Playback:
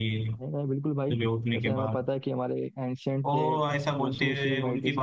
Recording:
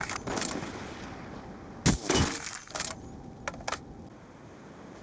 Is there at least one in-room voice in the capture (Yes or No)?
No